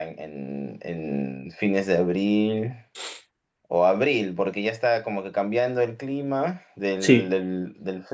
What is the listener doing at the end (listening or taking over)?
listening